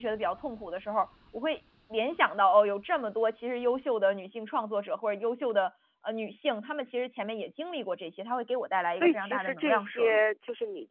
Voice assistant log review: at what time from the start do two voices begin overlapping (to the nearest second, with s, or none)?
9 s